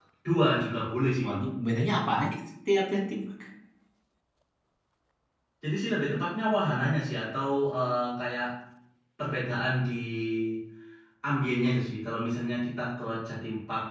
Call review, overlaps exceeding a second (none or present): none